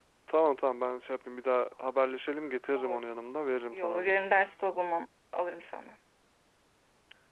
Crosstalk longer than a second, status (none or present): none